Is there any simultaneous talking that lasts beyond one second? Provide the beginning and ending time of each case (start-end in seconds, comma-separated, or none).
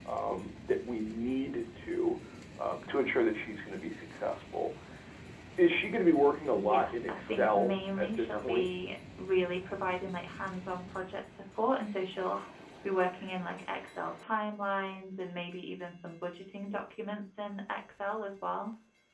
6.5-8.7